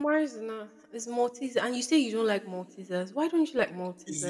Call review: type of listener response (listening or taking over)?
taking over